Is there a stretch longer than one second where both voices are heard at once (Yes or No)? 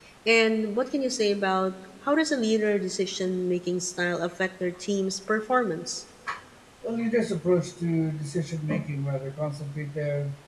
No